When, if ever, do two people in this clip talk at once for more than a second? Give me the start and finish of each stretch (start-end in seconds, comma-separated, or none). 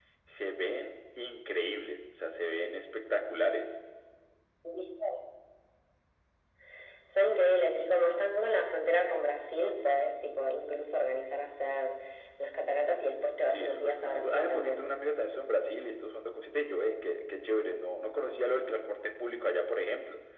13.5-14.9